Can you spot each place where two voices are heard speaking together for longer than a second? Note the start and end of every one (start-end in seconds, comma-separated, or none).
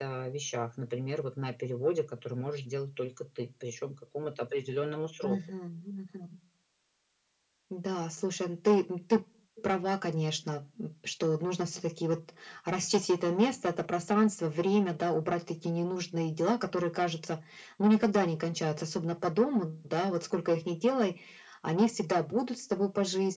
none